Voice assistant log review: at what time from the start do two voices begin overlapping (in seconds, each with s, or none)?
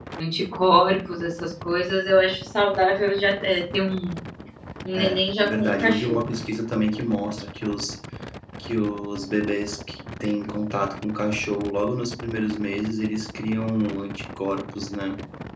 5.0 s